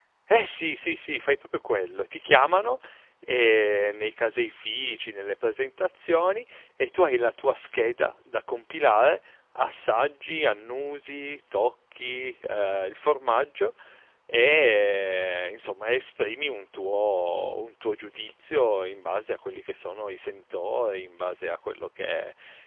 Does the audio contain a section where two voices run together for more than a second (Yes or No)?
No